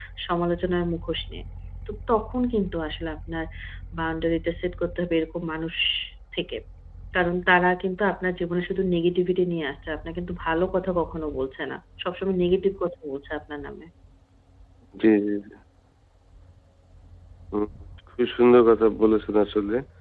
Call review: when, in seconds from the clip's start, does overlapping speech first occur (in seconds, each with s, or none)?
none